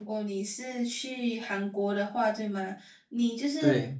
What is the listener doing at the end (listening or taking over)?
listening